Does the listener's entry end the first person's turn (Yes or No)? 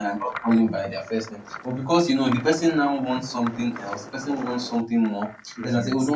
No